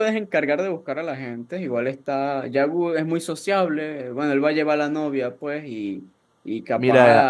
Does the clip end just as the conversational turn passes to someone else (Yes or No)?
Yes